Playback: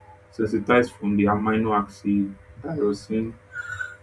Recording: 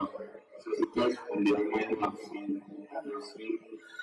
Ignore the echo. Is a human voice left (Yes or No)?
No